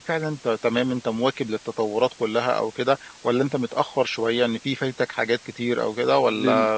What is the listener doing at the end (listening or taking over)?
taking over